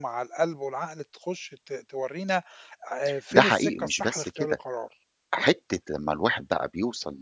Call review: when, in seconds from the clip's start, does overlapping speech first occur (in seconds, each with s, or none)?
3.3 s